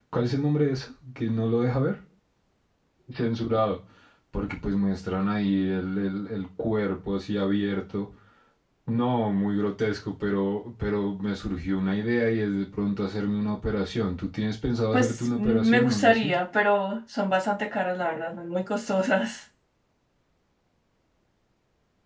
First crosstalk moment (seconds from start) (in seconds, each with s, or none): 14.9 s